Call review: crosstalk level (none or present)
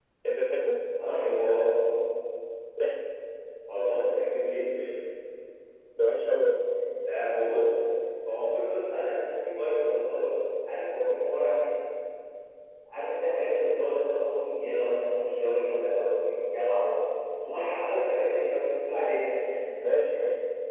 none